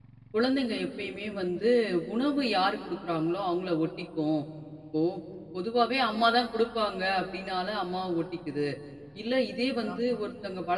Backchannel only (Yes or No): Yes